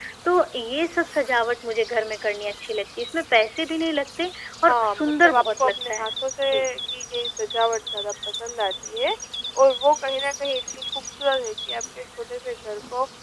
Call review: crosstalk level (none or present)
present